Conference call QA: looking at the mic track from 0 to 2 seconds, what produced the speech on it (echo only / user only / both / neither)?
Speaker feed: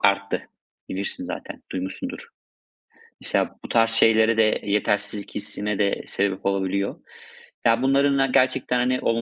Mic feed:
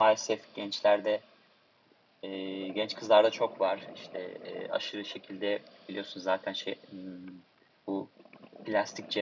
user only